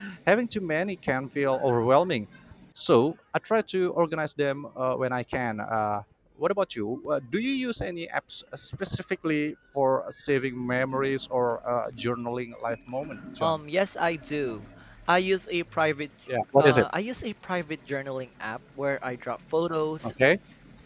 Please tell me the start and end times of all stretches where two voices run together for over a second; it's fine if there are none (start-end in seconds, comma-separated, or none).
none